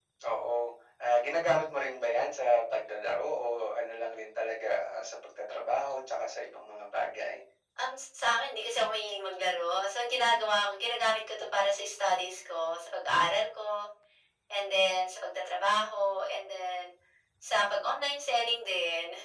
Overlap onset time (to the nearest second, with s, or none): none